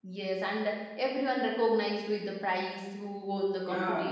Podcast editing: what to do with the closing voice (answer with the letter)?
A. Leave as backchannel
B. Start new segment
B